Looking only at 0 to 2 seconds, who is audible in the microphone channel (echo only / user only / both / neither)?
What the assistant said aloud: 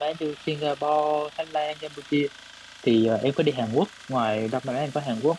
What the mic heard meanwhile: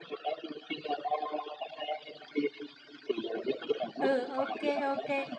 echo only